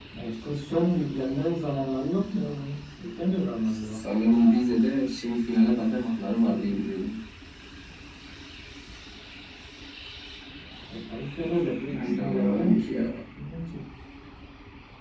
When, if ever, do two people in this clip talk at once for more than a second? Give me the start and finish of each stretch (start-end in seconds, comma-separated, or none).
11.8-13.1